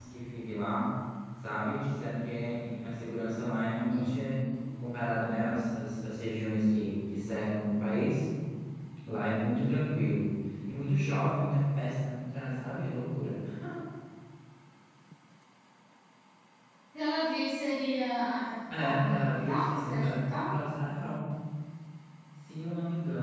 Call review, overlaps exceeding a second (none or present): present